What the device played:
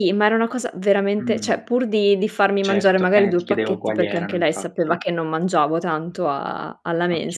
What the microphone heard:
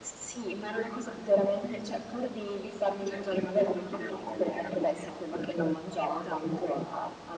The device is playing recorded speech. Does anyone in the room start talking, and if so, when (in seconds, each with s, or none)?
none